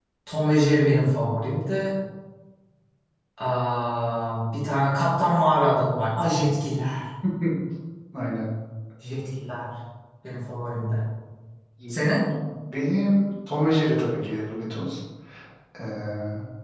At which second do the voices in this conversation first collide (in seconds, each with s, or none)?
none